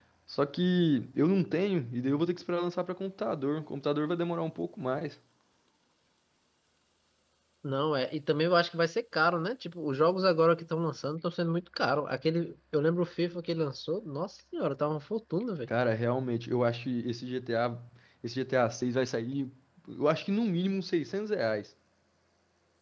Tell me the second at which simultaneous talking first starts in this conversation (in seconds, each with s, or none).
none